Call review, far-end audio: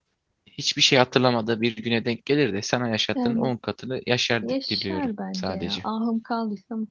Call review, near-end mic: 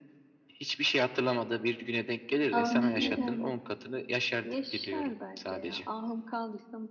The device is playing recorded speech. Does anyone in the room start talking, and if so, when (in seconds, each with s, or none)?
2.5 s